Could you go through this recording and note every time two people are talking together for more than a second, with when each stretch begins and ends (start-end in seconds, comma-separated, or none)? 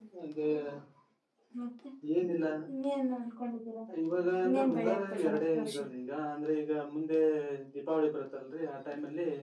4.4-5.8